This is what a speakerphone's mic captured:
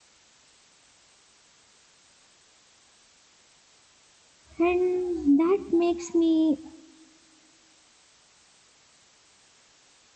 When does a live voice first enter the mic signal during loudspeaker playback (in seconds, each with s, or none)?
4.6 s